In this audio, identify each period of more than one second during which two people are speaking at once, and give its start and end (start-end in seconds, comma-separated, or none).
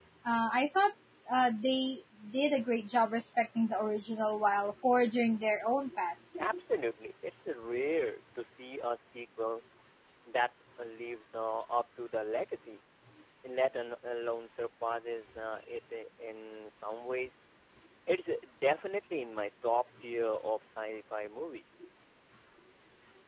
none